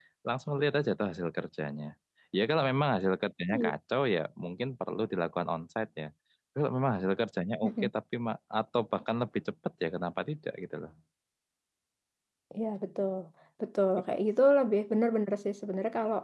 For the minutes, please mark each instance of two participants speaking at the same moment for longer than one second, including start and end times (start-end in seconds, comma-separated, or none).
none